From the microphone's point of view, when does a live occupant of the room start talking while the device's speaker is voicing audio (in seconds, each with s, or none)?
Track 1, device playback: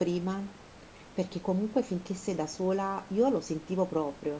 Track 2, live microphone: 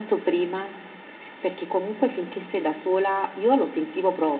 none